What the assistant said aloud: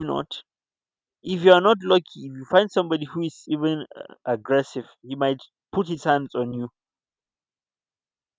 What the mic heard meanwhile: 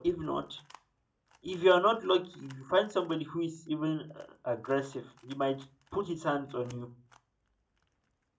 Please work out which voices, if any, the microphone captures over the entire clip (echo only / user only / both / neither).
echo only